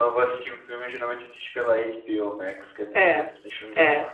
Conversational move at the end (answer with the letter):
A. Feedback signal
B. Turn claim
B